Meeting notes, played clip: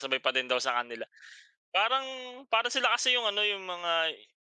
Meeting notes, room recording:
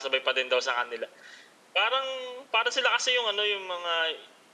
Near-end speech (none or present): none